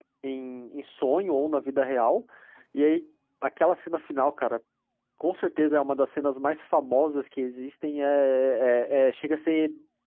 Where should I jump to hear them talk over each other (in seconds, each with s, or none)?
none